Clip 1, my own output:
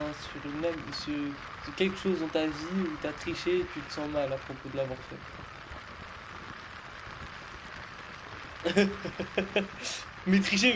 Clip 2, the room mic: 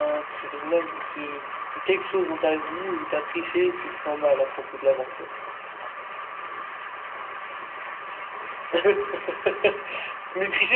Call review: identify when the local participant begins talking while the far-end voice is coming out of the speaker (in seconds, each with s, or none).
none